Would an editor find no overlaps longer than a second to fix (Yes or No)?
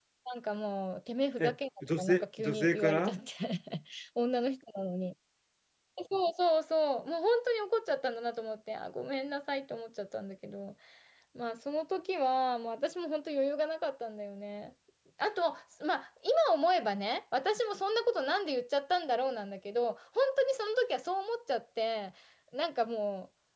No